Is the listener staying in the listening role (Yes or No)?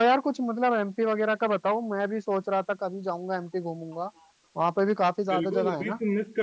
No